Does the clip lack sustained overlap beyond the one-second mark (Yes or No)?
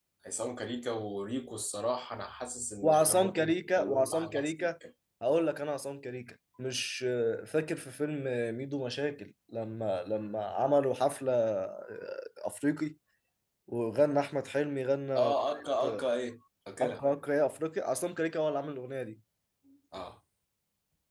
No